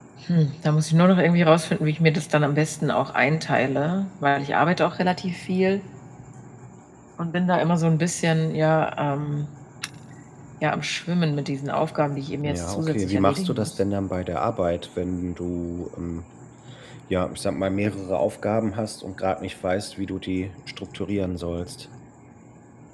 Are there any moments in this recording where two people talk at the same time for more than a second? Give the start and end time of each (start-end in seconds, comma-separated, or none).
12.5-13.8